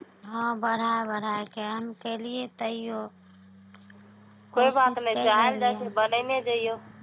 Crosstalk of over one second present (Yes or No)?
Yes